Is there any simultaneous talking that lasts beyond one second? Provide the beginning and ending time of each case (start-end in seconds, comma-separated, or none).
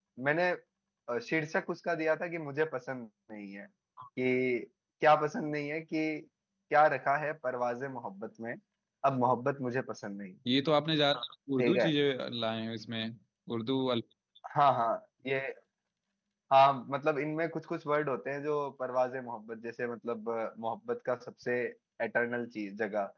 none